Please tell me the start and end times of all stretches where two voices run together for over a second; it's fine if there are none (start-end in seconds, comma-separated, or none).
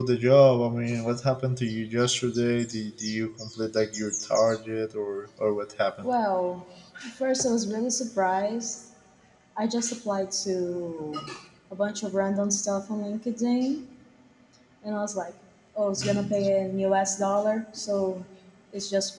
none